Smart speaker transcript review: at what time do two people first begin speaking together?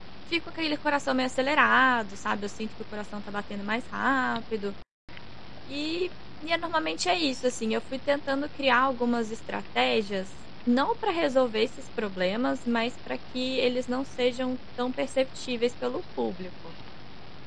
none

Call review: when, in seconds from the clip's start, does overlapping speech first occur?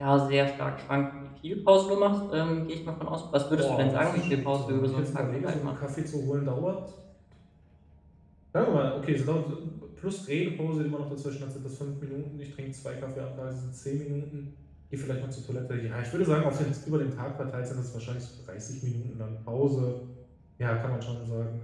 3.6 s

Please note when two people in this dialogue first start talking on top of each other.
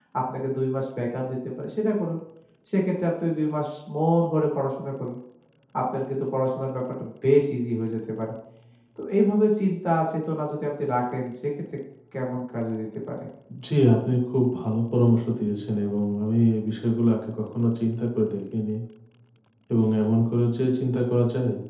none

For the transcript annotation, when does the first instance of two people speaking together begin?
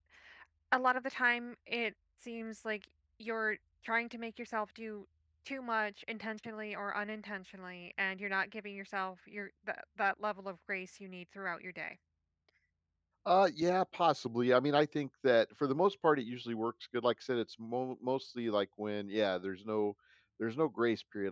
none

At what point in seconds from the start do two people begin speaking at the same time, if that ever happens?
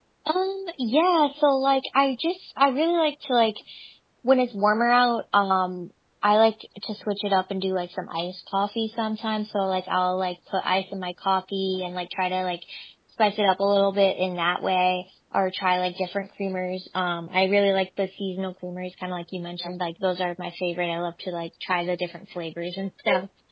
none

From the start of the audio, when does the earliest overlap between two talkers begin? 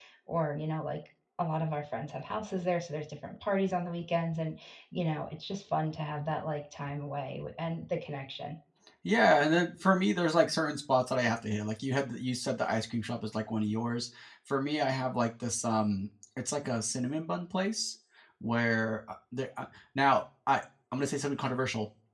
none

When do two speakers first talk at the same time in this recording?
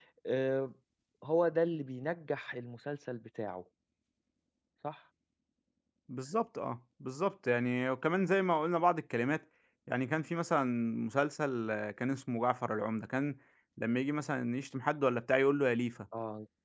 none

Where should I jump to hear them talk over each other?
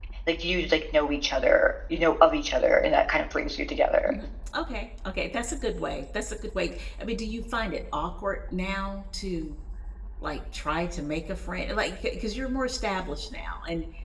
none

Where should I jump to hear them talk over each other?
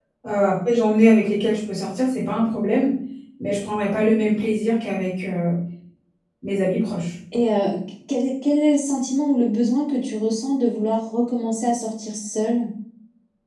none

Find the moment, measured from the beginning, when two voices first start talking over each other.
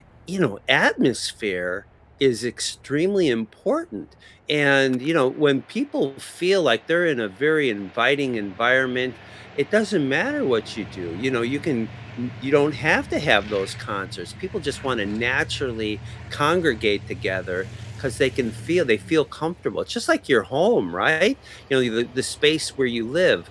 none

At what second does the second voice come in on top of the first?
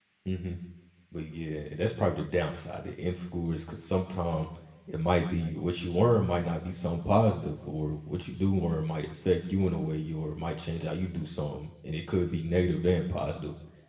none

